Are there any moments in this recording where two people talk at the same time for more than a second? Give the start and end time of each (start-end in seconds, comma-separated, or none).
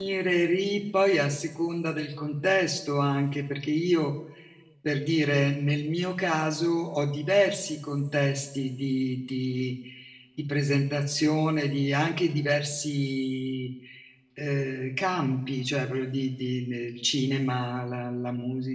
none